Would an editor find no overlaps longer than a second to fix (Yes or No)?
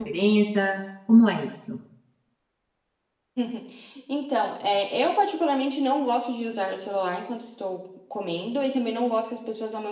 Yes